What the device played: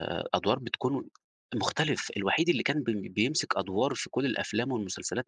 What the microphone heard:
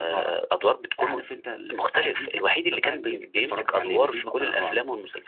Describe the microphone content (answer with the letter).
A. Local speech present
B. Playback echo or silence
A